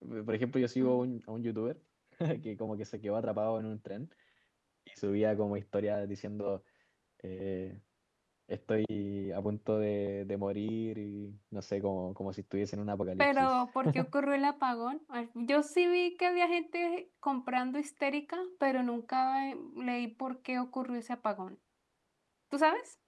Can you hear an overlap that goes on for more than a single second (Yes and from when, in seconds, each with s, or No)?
No